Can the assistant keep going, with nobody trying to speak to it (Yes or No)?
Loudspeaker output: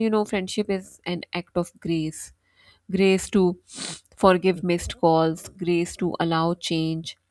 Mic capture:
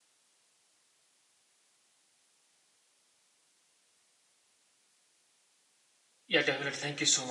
No